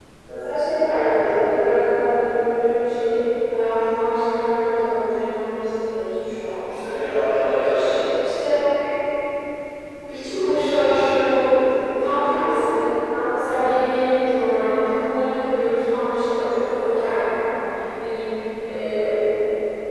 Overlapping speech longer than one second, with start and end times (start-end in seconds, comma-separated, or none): none